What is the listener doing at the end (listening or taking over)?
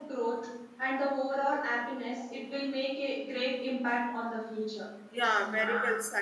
taking over